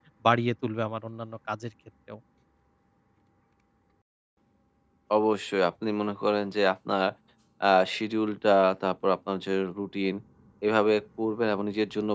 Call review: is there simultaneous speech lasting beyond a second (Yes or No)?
No